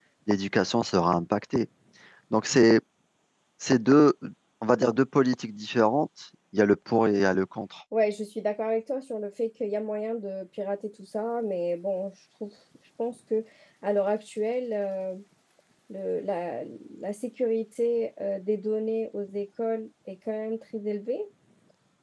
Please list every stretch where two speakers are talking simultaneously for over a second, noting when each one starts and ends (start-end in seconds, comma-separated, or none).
none